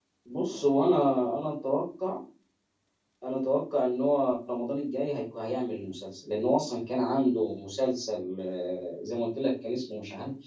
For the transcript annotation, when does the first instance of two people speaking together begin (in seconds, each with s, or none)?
none